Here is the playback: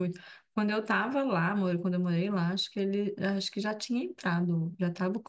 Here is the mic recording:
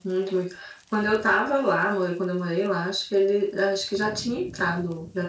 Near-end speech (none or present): none